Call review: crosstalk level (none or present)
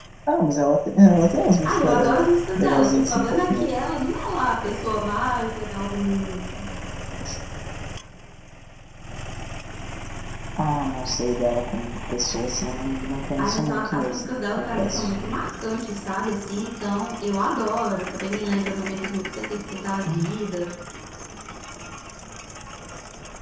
present